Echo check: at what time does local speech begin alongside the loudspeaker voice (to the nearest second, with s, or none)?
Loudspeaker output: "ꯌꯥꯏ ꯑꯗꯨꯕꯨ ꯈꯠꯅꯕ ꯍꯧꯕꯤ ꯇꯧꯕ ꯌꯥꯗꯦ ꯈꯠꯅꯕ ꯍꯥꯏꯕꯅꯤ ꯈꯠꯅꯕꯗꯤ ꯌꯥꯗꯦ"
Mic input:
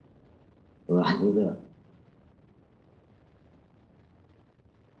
1 s